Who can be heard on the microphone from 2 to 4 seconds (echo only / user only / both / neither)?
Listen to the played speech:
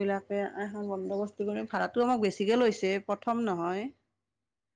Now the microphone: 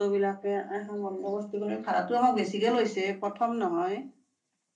echo only